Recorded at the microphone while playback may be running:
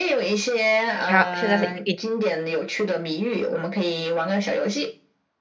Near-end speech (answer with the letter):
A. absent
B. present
B